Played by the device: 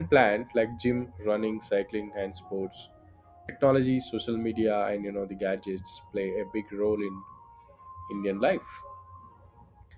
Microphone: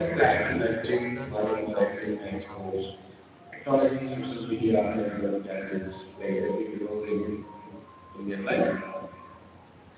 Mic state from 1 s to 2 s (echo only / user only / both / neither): both